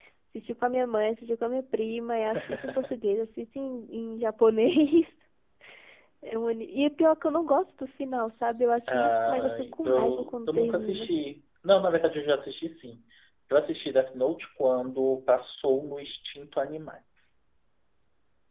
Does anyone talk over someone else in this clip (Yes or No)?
Yes